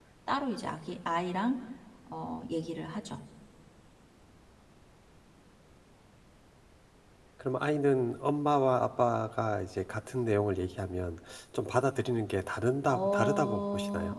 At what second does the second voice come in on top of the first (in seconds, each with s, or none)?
12.9 s